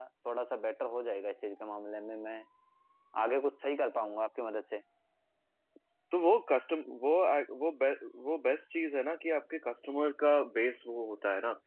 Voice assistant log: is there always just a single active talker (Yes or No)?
Yes